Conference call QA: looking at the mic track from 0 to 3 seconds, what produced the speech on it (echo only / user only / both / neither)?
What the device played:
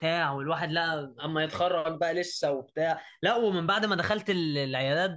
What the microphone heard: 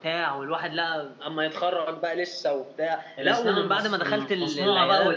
echo only